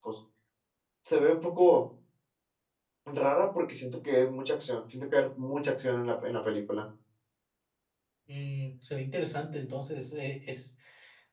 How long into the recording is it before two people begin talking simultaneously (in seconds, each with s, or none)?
none